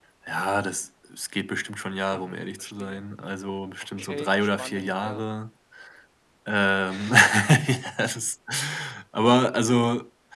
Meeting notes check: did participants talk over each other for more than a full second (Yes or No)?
Yes